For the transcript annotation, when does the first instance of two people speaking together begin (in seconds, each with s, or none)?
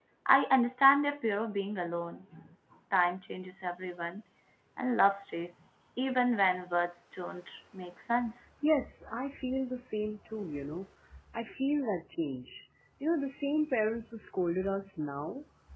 none